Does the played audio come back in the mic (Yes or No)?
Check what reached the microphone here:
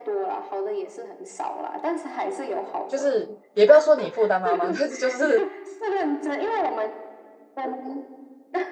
Yes